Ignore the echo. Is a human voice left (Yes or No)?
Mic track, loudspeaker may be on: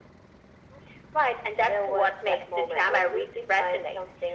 No